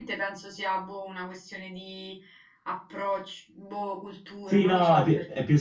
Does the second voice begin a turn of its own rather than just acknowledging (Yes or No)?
Yes